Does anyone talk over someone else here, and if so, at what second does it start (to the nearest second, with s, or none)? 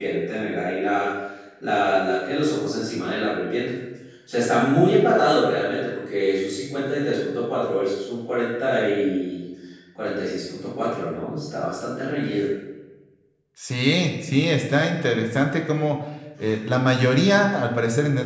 none